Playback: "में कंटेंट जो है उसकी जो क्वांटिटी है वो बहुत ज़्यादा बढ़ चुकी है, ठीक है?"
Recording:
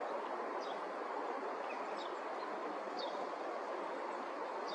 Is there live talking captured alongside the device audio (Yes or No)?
No